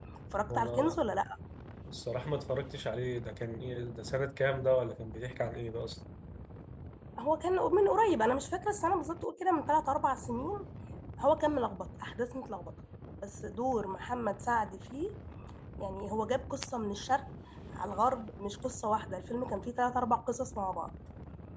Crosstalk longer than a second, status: none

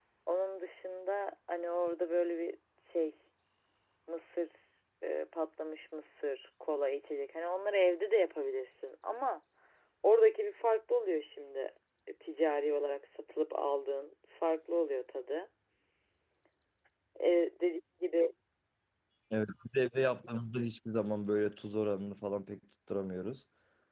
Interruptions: none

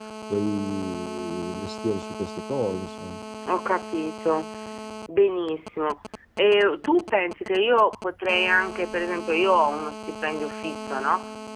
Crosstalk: none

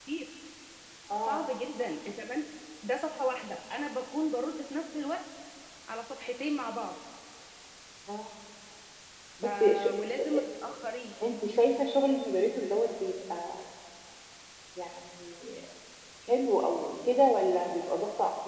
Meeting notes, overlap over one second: none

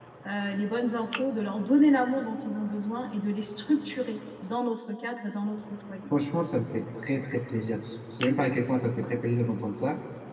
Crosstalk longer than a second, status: none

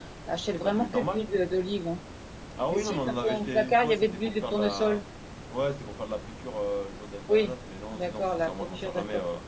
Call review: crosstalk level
present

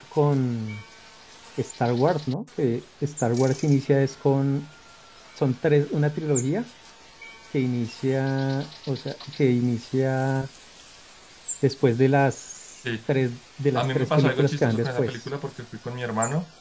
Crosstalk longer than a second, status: present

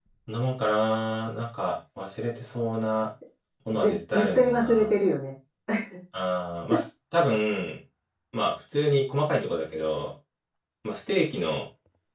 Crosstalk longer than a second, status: present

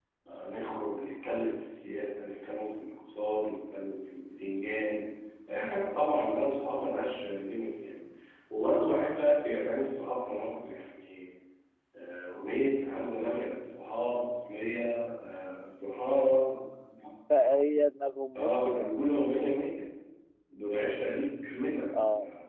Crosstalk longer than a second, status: none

